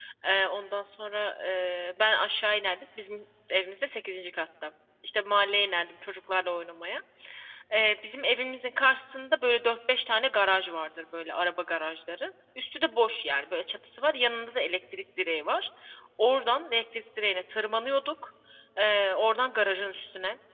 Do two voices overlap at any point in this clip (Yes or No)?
No